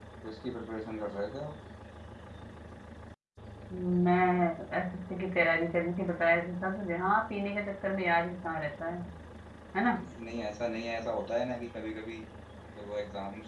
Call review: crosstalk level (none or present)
none